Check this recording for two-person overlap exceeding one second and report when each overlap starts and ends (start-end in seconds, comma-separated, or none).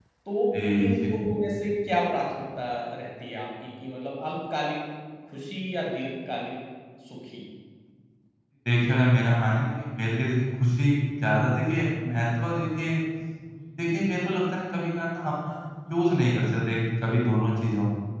none